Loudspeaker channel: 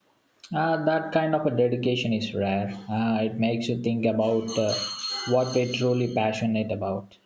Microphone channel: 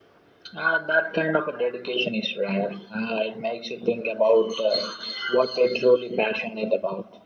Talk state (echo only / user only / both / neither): echo only